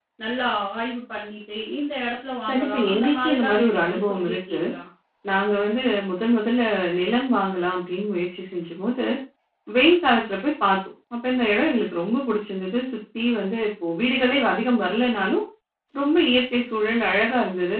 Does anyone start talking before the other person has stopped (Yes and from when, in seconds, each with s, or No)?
Yes, from 2.5 s